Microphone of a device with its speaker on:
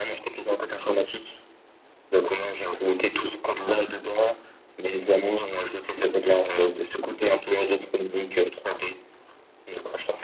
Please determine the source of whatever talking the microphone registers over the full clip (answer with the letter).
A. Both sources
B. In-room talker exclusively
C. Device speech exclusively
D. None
C